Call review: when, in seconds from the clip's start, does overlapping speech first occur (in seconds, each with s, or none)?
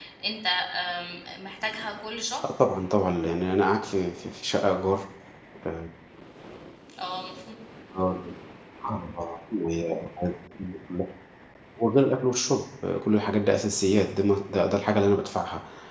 none